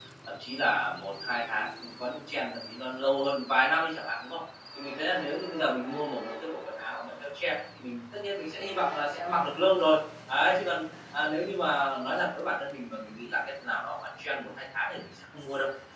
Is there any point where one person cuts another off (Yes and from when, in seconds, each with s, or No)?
No